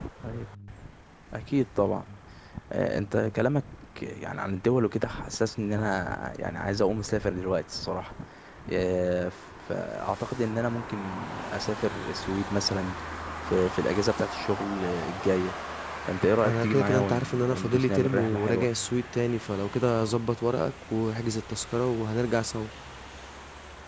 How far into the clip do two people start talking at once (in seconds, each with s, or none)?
16.4 s